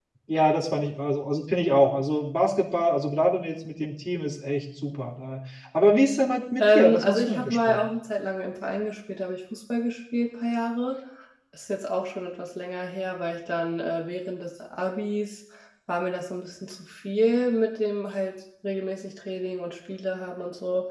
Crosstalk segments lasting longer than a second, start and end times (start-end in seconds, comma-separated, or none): 6.6-7.8